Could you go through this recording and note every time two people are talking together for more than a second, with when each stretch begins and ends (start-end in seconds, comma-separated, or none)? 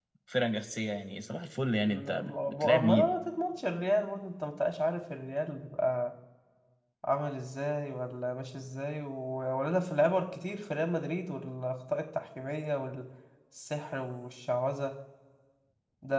1.8-3.1